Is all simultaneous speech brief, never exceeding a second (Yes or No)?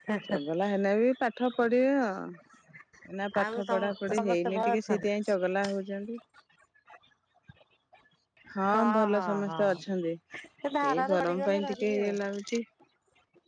No